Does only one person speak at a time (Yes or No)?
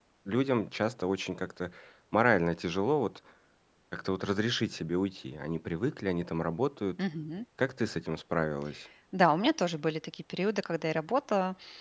Yes